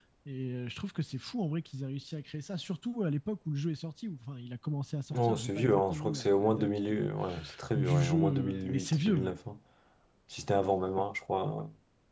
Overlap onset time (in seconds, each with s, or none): 5.1 s